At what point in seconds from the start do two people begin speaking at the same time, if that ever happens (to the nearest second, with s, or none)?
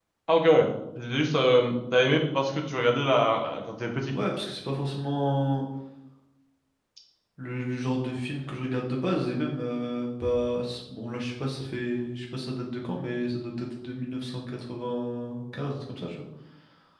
none